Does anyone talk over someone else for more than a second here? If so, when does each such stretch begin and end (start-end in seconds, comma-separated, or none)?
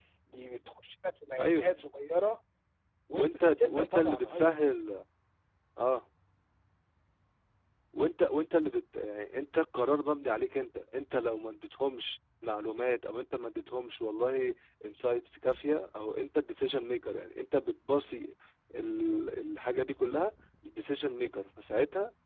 3.1-4.5